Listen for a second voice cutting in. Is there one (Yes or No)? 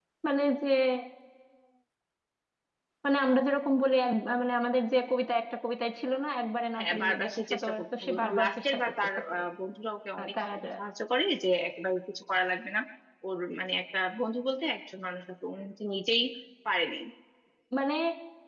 Yes